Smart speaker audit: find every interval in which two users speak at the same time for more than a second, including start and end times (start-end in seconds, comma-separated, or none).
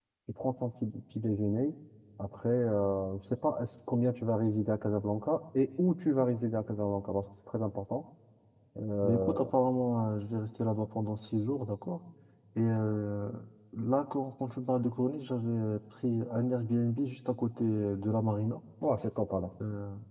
none